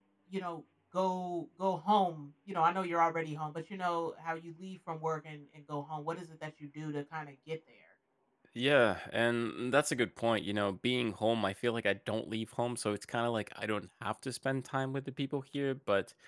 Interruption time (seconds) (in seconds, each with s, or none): none